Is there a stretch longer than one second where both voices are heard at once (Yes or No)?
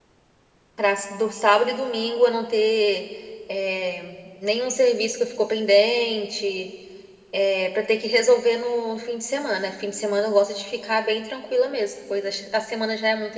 No